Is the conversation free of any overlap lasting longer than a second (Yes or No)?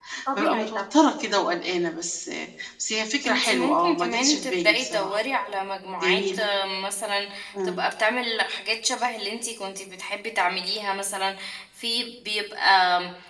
No